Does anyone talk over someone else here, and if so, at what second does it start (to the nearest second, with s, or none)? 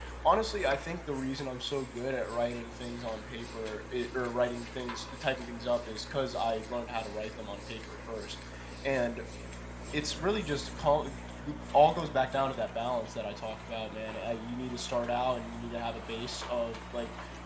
none